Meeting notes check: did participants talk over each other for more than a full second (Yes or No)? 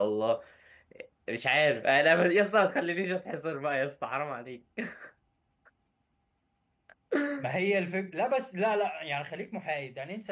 No